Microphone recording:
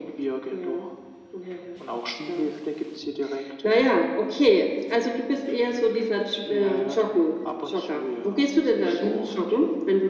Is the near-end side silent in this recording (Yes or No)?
Yes